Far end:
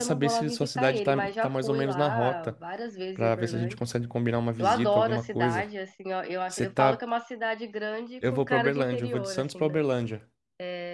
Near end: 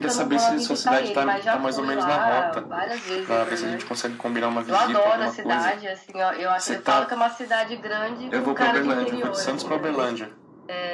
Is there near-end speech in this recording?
No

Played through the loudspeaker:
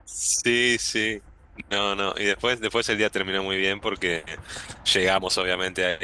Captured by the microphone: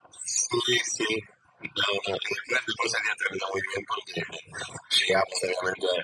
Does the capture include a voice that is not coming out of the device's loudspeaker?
No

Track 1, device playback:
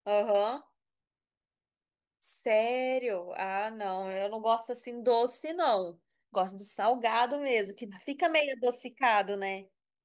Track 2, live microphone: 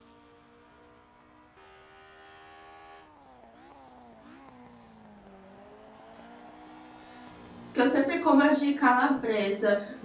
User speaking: Yes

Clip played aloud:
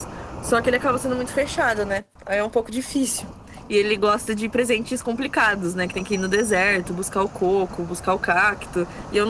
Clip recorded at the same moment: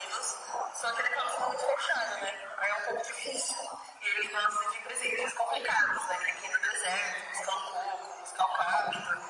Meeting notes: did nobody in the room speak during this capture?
Yes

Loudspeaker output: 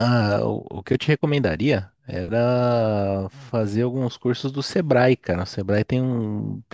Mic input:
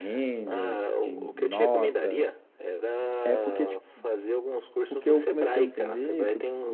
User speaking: Yes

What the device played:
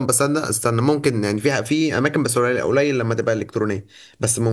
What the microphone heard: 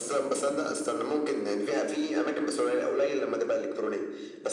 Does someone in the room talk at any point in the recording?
No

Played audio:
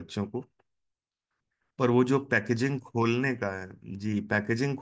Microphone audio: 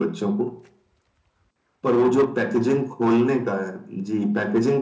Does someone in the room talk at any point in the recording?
No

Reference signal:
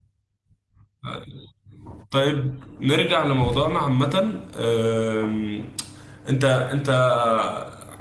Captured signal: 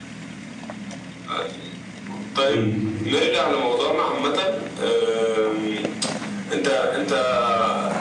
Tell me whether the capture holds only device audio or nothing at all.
No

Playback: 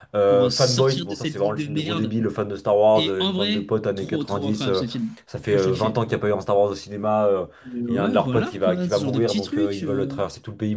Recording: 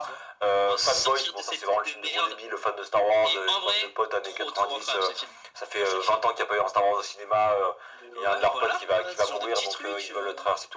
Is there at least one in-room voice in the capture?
No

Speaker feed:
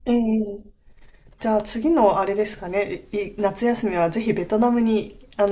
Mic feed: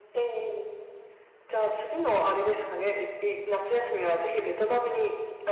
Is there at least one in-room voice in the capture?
No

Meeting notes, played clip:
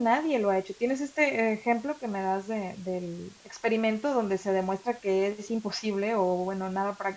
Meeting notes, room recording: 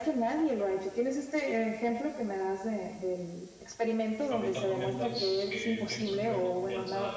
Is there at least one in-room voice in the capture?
Yes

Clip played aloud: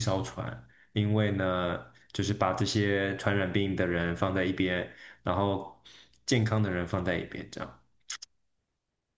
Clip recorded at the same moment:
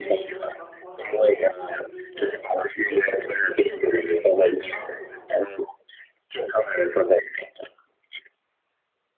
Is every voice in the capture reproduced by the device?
No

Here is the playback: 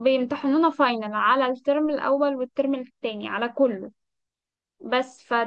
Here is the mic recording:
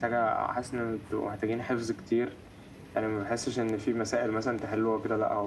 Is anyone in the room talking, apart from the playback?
Yes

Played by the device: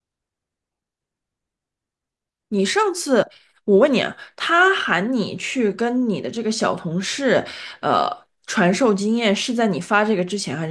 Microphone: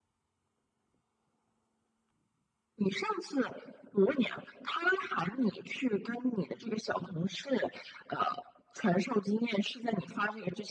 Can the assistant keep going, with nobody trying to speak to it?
Yes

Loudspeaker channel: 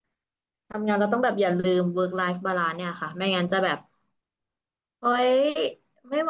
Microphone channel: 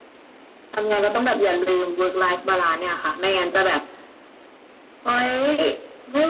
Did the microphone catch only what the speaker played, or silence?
Yes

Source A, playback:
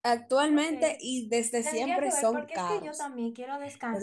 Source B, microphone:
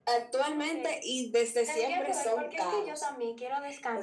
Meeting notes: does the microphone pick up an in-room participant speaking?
No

